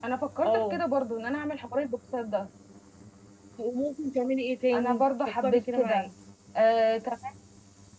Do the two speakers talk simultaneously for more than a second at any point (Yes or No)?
Yes